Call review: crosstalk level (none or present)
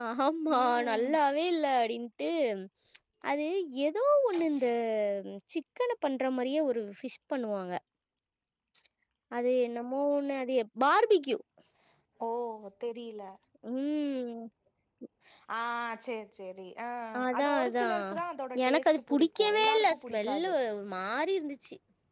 present